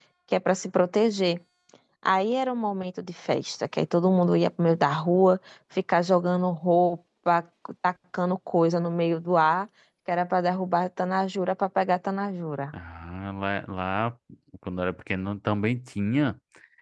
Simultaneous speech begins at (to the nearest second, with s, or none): none